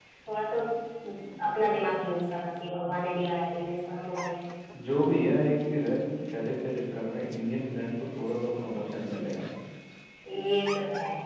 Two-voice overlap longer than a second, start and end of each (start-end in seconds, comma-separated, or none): none